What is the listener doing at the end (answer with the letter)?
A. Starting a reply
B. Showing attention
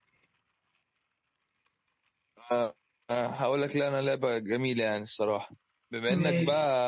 B